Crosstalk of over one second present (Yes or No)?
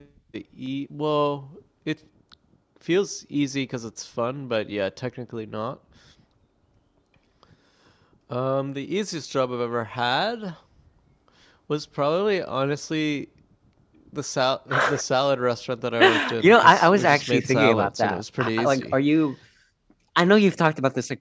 Yes